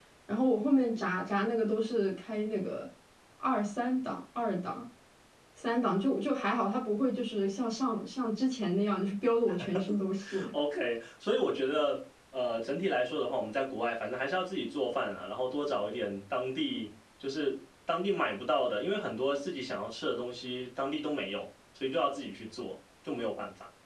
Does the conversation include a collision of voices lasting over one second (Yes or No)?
No